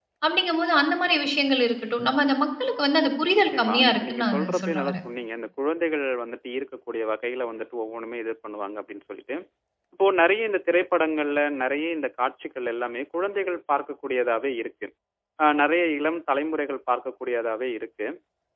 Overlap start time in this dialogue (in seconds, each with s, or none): 3.5 s